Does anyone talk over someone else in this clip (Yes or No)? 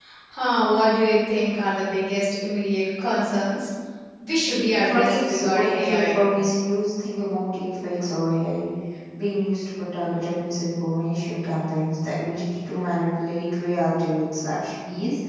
Yes